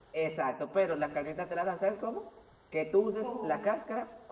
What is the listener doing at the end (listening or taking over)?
listening